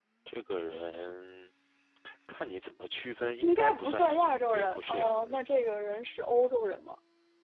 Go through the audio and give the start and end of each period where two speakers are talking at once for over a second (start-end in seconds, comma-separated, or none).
3.4-5.4